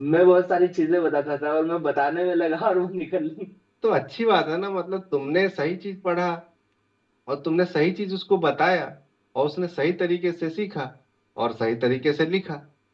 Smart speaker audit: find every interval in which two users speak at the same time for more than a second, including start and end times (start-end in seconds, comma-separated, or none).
none